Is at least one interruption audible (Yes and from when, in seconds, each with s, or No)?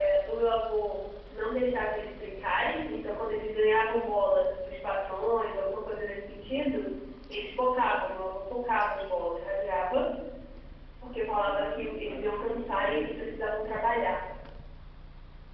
Yes, from 11.3 s